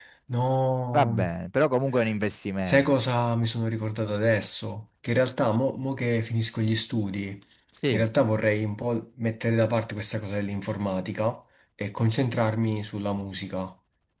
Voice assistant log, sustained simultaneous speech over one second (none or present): none